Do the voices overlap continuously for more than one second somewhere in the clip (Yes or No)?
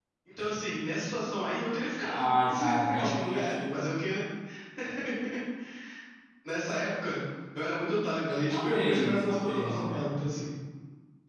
Yes